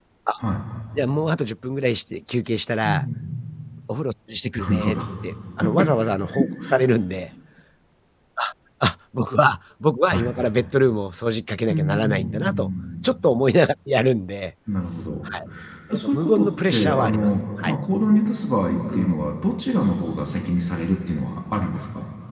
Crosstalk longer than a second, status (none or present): present